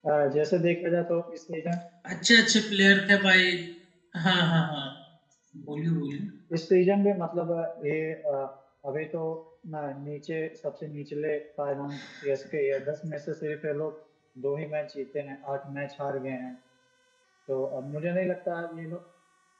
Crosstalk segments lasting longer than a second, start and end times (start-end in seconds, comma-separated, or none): none